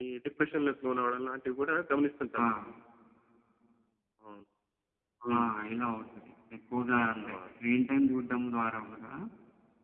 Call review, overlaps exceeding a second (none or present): none